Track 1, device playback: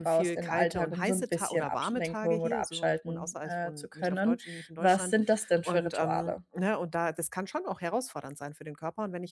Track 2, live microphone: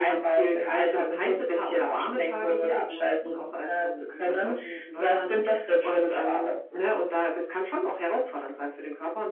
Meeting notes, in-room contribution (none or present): none